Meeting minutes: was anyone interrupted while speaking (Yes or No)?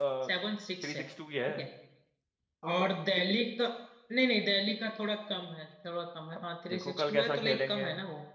Yes